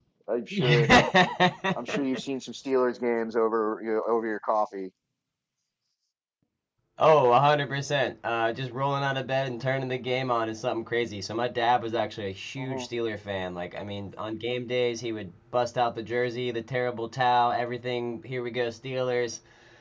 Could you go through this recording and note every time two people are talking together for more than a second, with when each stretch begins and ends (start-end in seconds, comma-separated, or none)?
none